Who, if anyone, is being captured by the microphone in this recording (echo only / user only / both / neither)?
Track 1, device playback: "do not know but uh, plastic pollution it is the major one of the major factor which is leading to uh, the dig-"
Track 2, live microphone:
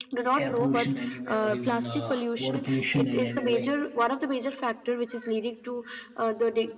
both